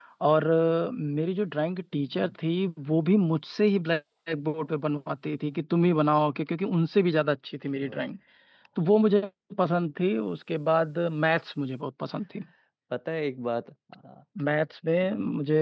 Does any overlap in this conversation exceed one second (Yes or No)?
No